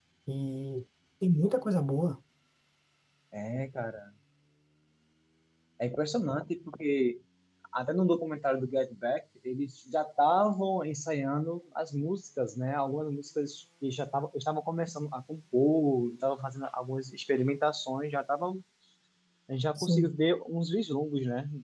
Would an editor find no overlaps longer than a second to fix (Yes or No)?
Yes